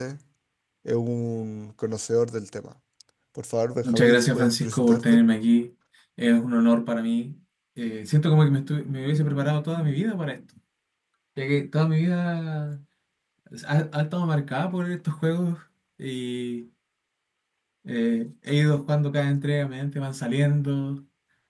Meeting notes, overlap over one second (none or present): present